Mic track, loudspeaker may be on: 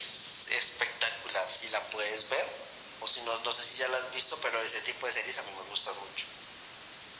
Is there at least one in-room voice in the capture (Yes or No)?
No